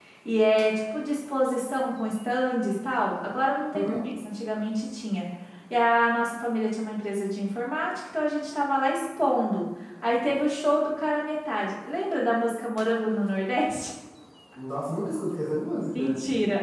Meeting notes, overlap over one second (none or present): none